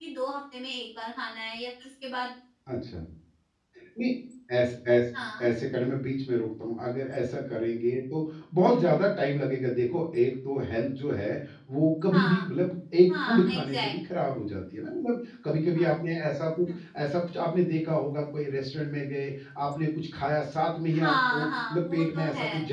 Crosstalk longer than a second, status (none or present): present